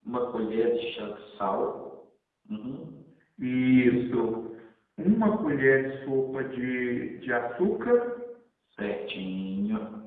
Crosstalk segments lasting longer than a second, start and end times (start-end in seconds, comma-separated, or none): none